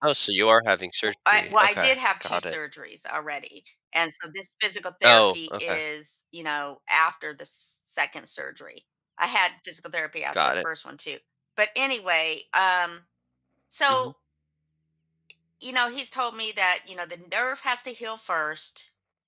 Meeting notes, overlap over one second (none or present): present